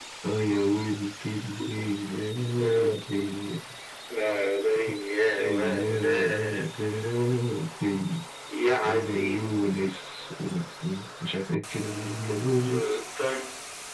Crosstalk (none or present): present